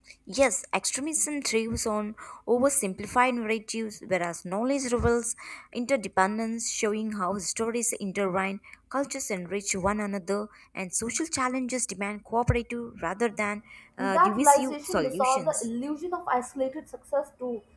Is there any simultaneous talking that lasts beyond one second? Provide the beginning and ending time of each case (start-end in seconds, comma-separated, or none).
14.0-15.7